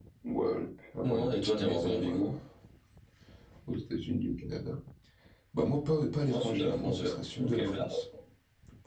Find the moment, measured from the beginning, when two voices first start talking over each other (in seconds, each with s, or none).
1.0 s